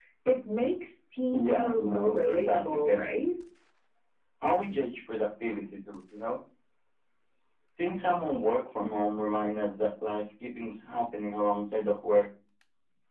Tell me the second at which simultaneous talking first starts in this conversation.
1.3 s

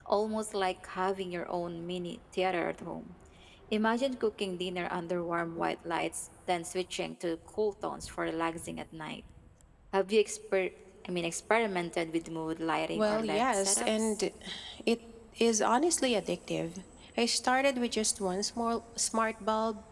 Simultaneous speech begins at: 12.9 s

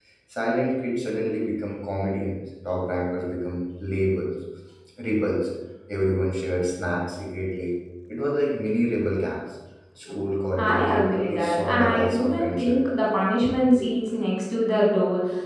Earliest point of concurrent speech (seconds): 10.6 s

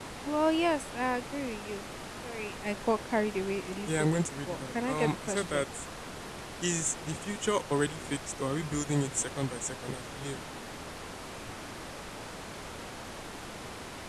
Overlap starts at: 3.9 s

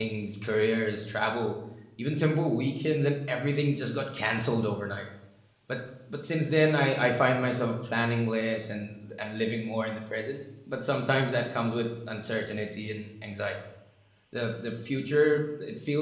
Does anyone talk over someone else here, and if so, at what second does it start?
none

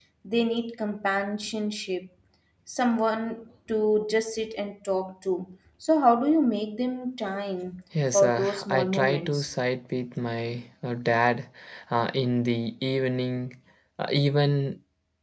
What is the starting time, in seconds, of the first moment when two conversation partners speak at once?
7.9 s

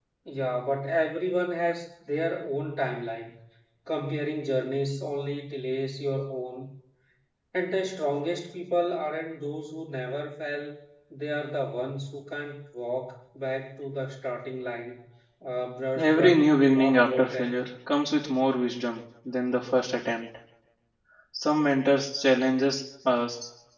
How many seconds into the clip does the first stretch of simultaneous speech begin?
16.0 s

